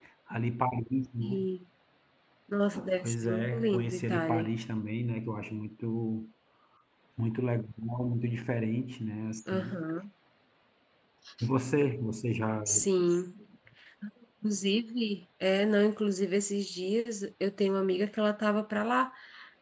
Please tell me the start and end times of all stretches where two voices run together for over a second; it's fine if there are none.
3.0-4.5

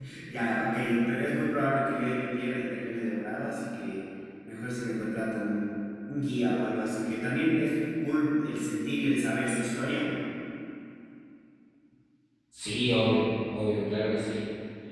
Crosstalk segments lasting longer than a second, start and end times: none

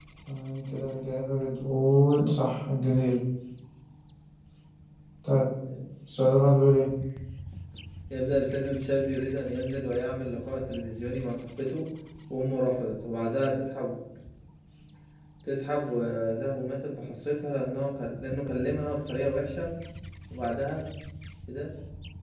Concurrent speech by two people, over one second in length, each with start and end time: none

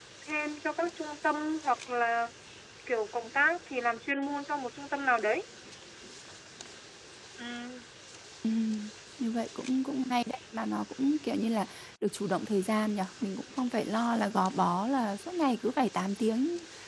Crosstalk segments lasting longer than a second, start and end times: none

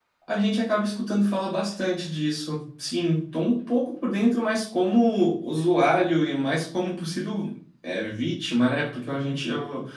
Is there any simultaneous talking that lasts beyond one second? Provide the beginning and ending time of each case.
none

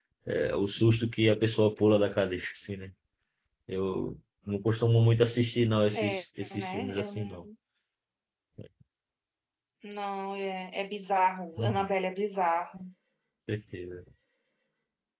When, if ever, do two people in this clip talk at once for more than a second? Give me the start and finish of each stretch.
5.9-7.3

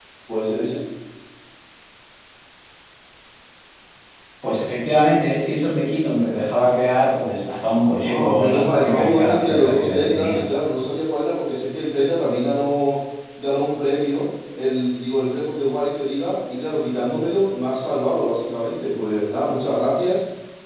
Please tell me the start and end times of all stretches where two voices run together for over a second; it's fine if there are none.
8.0-10.4

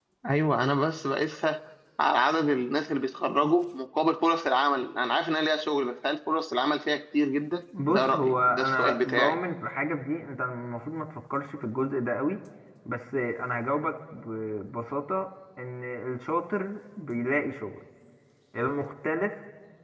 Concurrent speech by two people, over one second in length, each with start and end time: 7.9-9.4

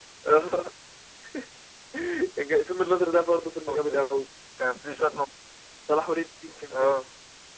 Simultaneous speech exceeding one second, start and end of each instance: none

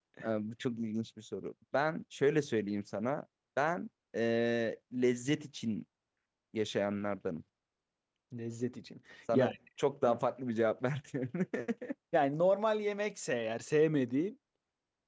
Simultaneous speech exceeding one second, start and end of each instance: none

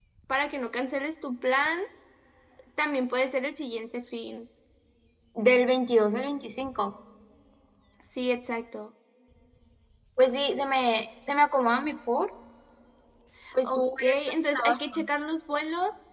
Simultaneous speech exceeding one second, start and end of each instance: 13.6-15.0

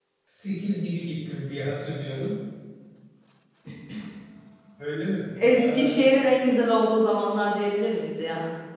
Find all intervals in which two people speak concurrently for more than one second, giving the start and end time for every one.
none

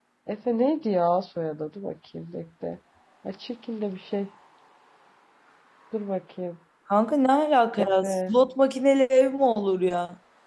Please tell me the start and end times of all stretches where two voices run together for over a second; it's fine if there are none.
none

